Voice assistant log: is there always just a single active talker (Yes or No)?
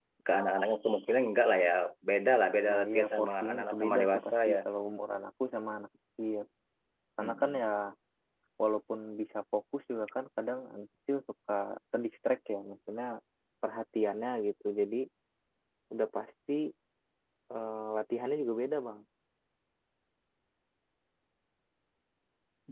No